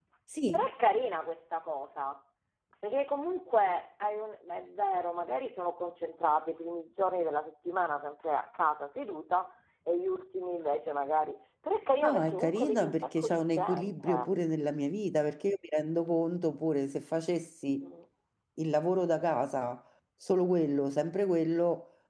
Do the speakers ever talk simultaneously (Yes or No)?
Yes